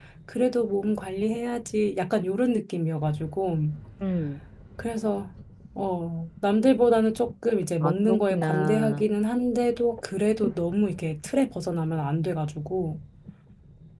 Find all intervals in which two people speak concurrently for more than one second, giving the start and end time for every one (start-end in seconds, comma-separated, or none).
7.8-9.0